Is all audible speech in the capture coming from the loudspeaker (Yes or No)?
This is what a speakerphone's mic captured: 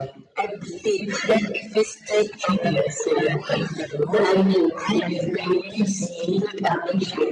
Yes